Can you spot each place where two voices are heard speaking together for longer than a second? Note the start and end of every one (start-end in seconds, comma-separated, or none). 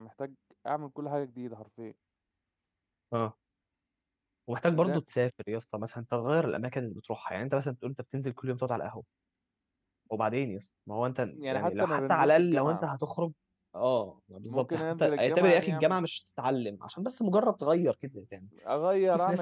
11.3-12.8, 14.5-16.0